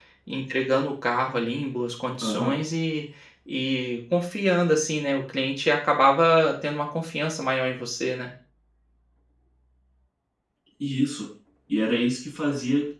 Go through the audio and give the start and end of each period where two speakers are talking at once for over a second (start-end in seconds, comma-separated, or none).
none